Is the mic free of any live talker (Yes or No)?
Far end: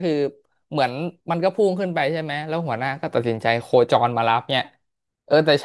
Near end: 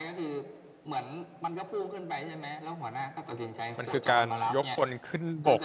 No